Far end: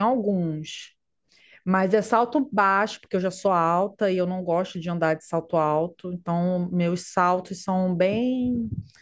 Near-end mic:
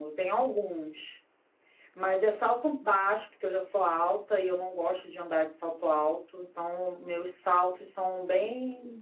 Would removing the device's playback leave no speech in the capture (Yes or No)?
Yes